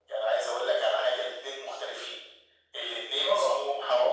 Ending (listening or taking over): listening